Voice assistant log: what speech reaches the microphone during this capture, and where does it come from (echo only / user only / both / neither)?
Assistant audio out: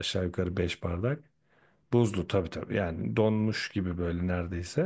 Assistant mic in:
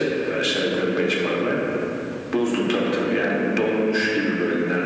echo only